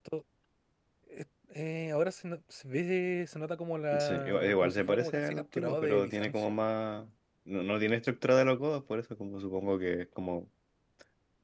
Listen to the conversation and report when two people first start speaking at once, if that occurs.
3.9 s

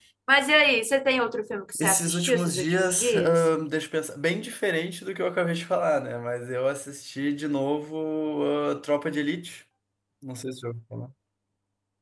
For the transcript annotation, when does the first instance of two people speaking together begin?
1.8 s

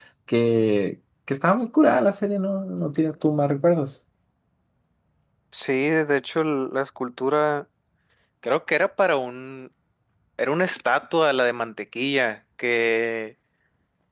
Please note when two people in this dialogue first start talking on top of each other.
none

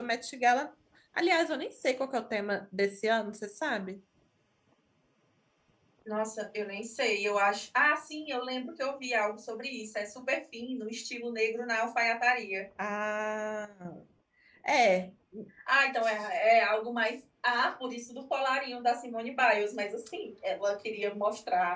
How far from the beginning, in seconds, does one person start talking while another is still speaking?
none

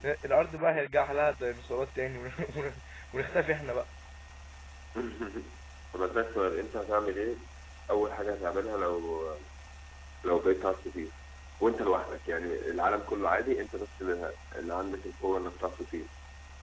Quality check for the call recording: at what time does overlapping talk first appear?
none

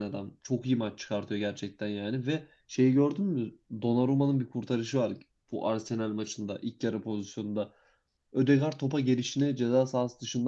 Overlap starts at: none

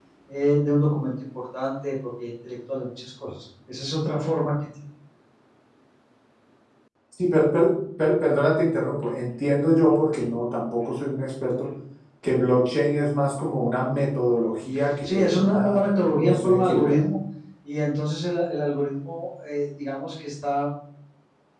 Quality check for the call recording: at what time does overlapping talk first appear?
15.0 s

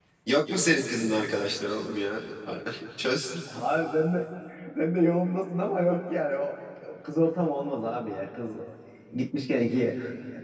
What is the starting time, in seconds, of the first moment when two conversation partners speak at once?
none

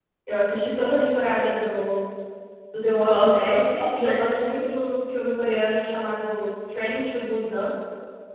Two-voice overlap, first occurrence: 2.9 s

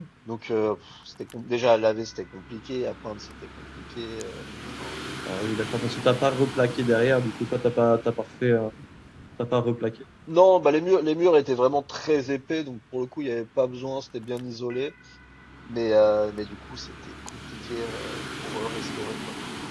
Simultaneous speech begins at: none

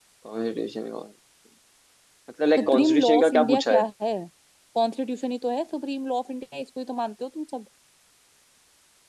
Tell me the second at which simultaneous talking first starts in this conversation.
2.6 s

